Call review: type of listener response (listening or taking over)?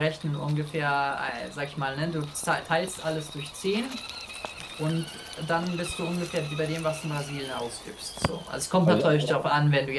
listening